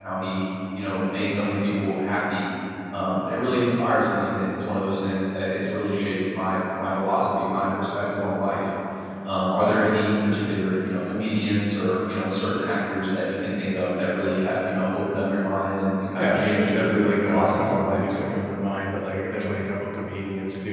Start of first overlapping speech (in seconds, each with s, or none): 16.2 s